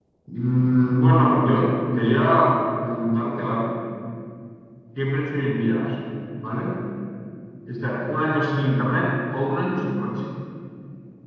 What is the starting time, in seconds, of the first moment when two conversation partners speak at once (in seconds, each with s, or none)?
none